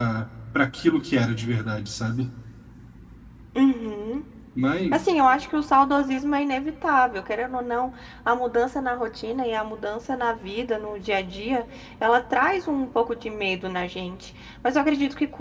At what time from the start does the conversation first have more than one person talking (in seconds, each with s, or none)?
none